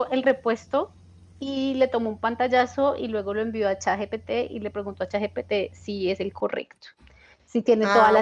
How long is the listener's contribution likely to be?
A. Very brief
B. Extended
A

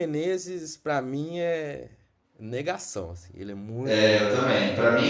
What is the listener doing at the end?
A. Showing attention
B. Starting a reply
B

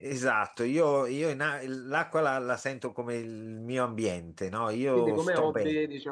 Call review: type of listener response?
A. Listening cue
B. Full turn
B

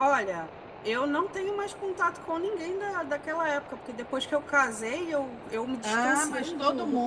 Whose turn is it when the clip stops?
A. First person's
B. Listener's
B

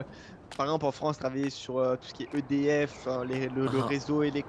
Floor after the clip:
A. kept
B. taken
A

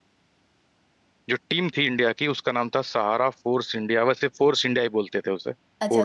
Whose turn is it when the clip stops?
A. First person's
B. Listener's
B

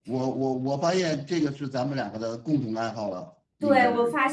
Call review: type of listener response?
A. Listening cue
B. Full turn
B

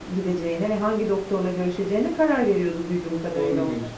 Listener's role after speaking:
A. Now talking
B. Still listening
A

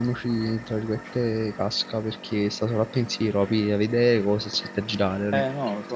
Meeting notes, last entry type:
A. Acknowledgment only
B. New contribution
B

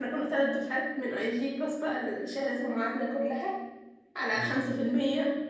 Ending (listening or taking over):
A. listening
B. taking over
A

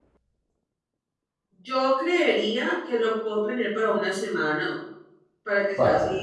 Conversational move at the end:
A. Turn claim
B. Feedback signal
B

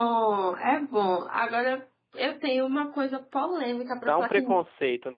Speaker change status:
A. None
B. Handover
B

